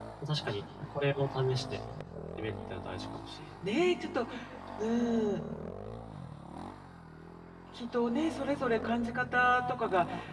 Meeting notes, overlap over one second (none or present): none